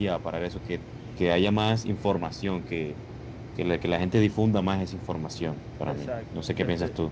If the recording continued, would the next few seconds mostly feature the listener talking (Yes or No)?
Yes